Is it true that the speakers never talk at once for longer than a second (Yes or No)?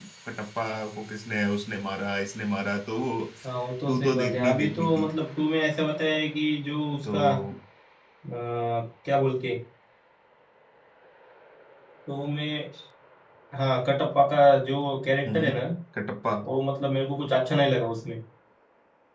No